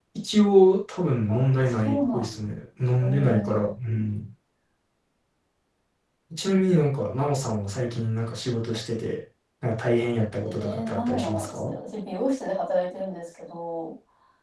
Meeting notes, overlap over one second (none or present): present